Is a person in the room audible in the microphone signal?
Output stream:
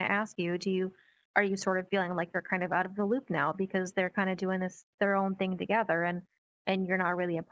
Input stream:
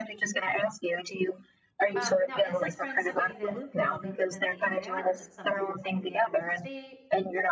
Yes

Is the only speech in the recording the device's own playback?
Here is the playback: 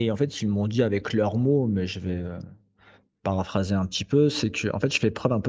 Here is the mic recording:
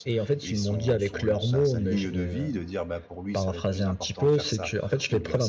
No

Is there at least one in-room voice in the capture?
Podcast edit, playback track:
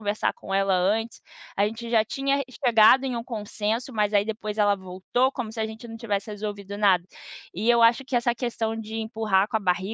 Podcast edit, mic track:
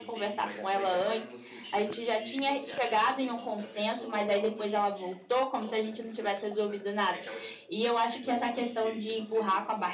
Yes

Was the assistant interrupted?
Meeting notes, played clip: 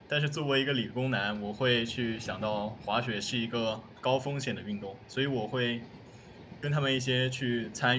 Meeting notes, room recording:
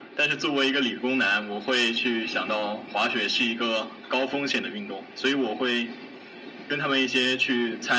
No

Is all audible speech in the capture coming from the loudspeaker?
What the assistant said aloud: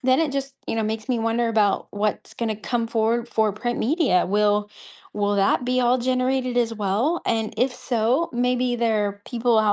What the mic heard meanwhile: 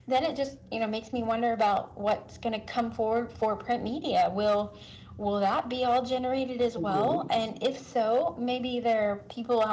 No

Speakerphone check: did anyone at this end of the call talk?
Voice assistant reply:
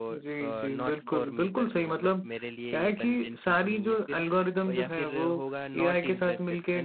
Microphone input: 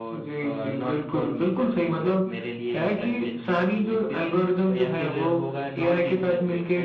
No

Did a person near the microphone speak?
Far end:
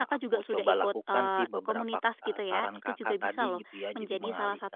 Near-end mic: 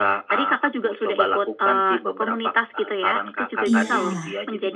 Yes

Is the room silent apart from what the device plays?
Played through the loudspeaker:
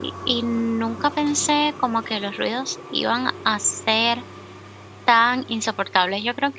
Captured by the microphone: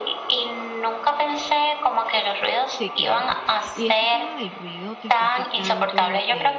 No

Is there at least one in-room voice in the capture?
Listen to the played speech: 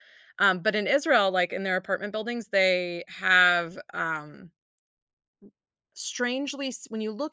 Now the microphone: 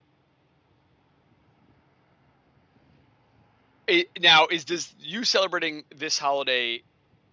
Yes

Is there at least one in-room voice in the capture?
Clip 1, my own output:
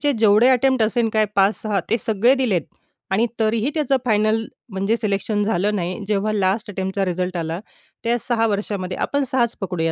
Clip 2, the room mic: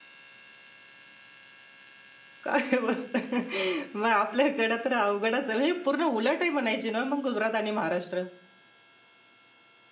Yes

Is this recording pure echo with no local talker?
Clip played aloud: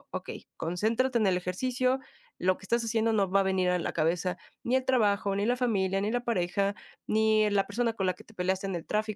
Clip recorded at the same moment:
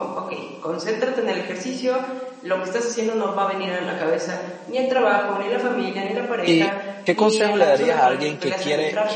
No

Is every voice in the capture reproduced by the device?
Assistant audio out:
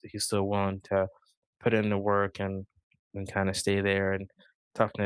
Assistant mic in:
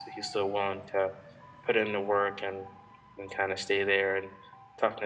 Yes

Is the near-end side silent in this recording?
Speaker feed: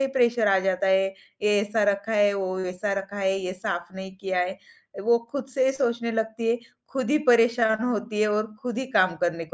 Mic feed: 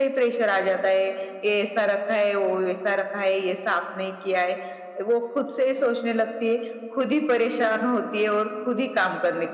Yes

